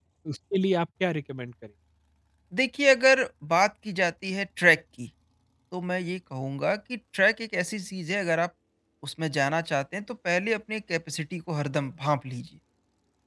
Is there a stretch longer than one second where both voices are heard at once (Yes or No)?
No